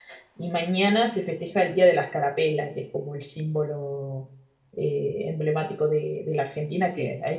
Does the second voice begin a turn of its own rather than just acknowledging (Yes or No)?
No